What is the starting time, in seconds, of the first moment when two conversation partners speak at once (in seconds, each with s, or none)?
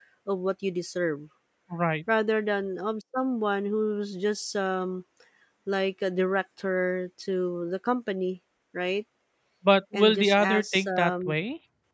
9.9 s